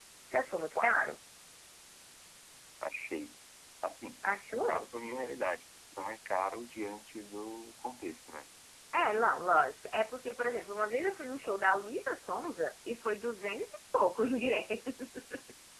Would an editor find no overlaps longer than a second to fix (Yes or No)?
Yes